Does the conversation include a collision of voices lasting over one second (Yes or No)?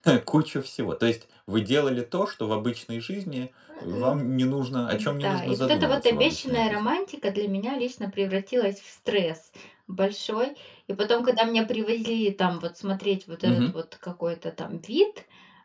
Yes